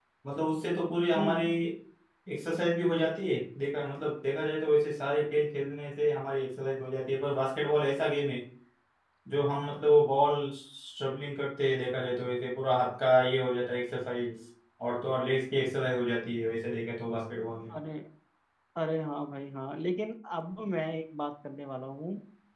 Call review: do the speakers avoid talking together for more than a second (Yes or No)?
Yes